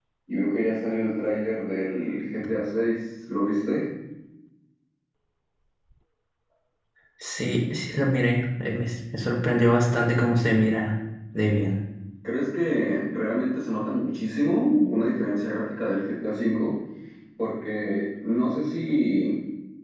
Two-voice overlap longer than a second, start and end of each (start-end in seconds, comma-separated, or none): none